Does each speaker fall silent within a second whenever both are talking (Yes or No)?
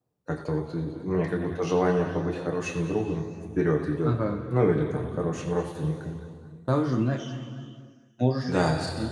Yes